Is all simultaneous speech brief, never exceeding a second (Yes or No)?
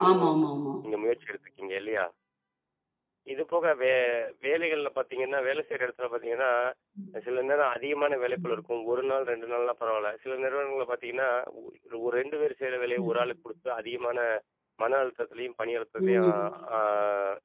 Yes